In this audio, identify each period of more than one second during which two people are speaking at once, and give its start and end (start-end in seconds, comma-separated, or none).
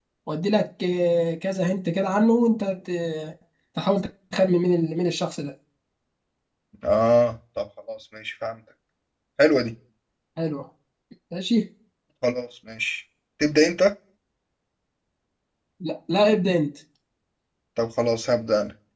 none